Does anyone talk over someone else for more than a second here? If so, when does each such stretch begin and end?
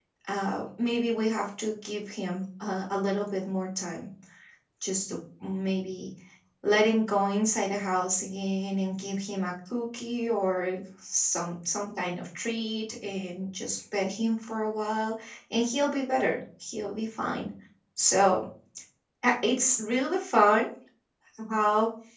none

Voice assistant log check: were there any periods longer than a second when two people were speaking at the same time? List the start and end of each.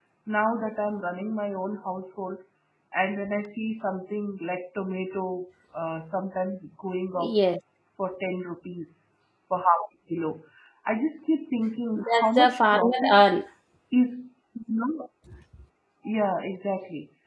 12.0-13.2

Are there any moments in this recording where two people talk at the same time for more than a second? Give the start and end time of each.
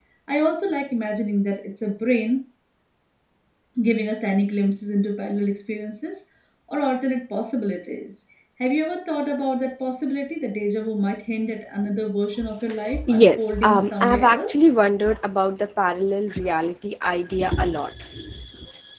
13.0-14.7

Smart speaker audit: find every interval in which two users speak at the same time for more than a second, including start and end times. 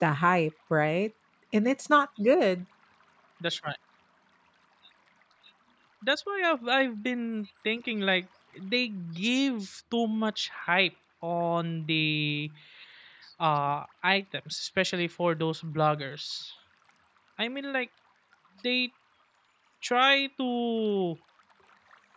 none

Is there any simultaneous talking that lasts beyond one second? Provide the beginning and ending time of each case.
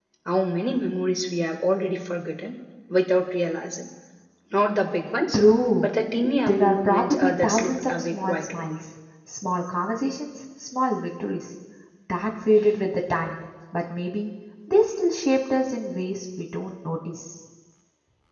6.5-8.7

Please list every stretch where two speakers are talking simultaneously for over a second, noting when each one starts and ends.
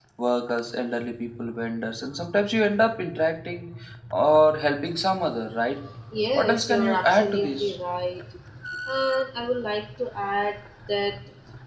6.3-7.8

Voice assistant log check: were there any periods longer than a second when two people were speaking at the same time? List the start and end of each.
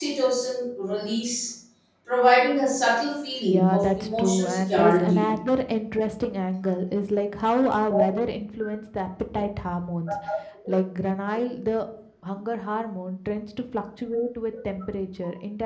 3.5-5.3

